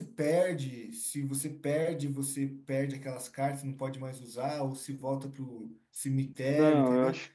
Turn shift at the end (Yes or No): Yes